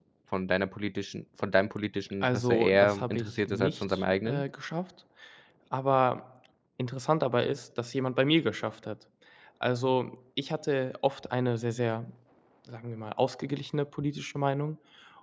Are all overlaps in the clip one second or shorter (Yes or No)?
No